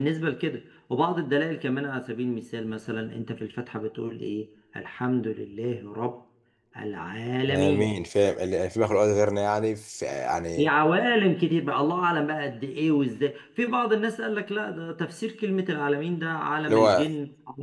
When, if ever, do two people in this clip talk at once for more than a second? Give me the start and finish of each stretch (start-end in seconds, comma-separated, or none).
none